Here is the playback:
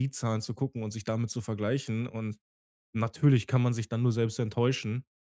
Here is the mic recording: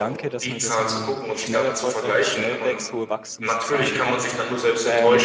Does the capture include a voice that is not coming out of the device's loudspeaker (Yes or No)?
Yes